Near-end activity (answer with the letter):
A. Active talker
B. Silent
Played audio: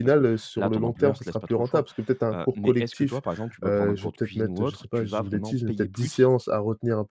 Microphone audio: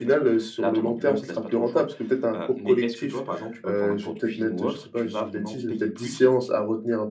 B